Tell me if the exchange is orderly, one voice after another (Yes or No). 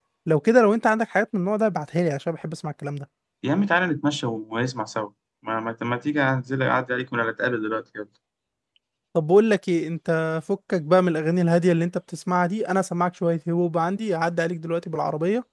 Yes